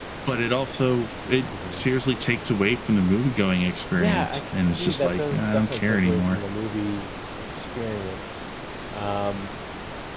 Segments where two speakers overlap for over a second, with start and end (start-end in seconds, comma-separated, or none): 4.0-6.4